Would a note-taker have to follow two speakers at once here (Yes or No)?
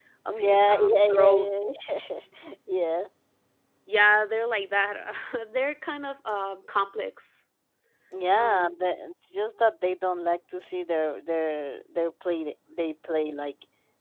Yes